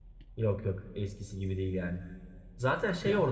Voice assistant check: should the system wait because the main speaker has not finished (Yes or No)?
Yes